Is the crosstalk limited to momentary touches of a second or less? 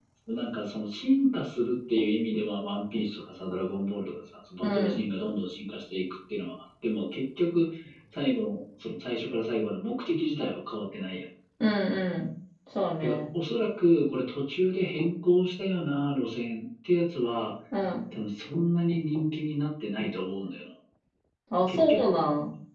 Yes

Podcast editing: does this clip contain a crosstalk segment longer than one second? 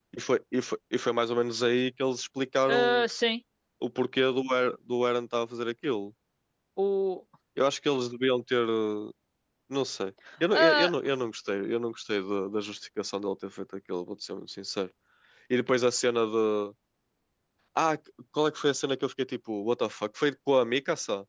No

